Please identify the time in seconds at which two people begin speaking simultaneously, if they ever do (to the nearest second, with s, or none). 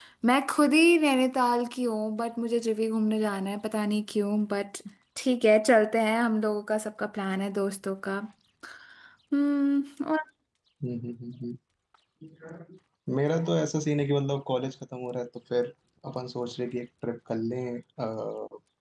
none